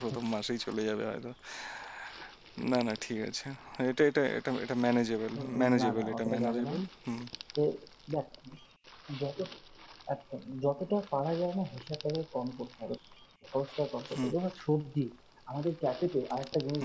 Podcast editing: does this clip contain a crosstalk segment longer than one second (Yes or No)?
Yes